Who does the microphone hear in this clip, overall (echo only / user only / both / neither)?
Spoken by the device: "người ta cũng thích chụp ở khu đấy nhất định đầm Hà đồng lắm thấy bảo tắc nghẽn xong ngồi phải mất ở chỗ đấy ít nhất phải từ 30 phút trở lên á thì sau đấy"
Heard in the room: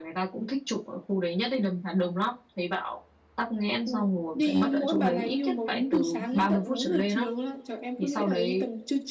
both